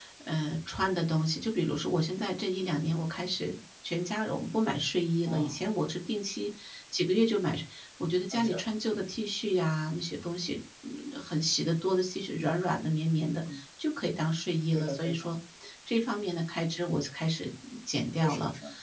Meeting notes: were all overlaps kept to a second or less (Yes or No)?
Yes